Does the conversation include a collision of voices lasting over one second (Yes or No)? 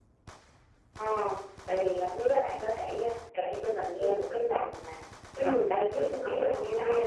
Yes